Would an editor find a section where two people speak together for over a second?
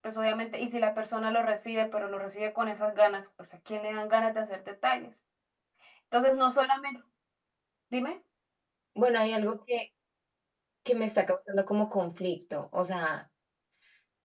No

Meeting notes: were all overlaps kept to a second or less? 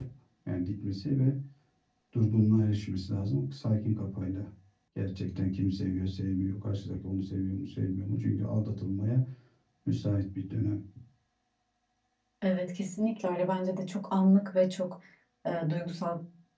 Yes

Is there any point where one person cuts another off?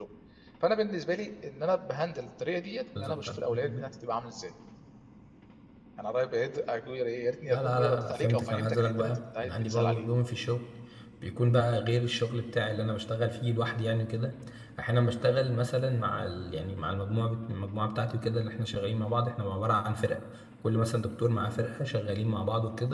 Yes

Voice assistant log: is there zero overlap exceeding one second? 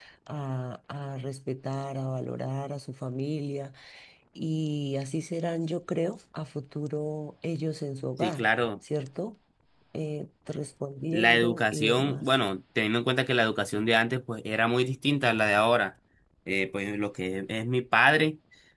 No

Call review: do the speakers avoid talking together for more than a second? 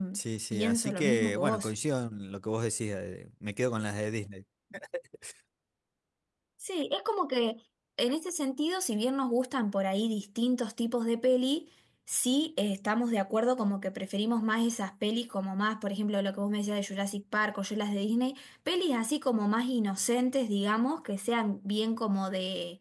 No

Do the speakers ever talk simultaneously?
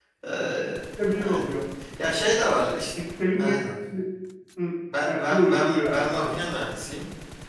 Yes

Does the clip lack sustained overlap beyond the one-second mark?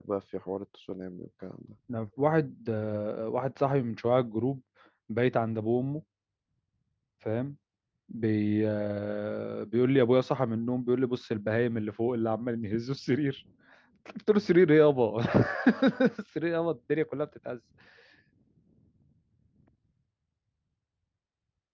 Yes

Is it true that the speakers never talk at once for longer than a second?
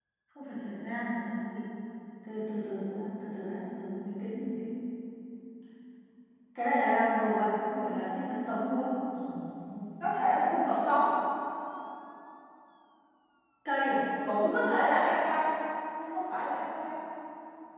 Yes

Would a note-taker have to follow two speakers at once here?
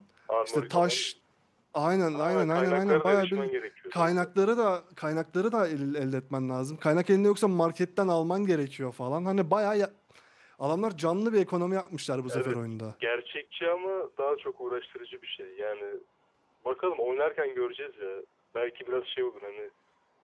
Yes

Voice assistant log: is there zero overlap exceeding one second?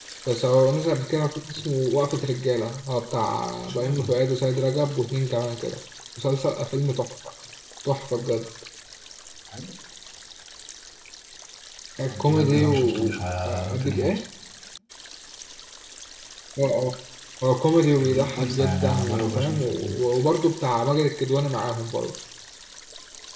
No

